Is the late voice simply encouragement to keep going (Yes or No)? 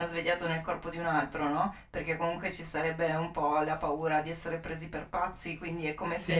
Yes